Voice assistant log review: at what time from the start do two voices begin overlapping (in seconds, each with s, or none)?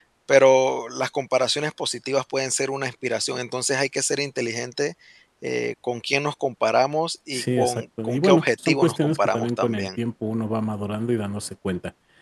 7.3 s